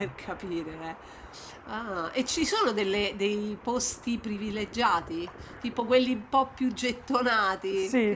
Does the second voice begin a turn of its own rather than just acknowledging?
Yes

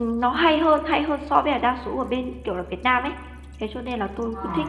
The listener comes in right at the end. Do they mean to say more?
No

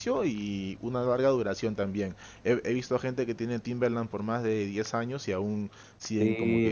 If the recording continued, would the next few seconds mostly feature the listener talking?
Yes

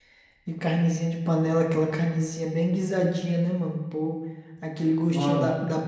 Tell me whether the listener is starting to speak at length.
No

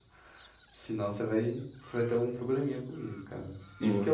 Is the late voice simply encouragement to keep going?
Yes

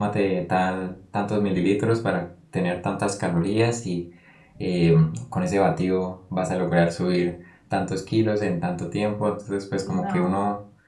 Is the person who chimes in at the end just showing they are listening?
Yes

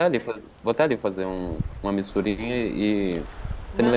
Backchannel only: Yes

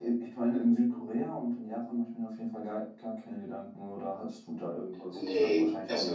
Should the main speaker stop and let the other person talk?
Yes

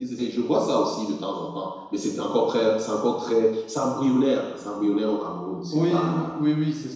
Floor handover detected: Yes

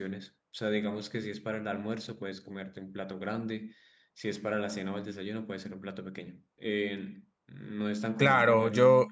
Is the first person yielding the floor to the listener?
Yes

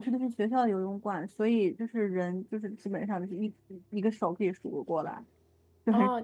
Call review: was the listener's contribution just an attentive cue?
No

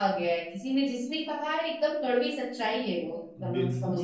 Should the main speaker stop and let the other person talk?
Yes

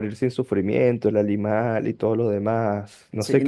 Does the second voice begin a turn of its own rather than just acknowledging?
Yes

